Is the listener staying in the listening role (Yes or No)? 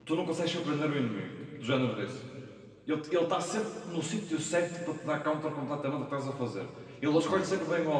Yes